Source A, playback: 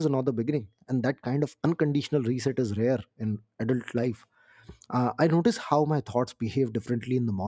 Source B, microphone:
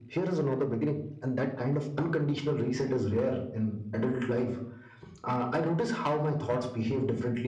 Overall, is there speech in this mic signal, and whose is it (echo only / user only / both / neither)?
echo only